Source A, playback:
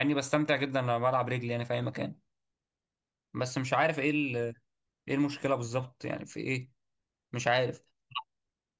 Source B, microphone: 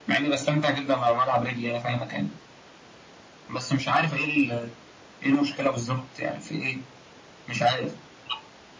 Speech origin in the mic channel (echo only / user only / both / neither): echo only